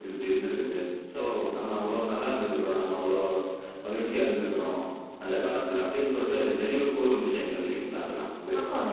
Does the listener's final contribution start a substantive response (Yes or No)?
Yes